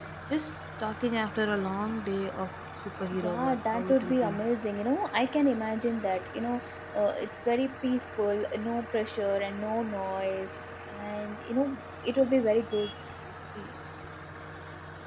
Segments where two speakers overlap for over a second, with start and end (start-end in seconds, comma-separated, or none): 3.2-4.5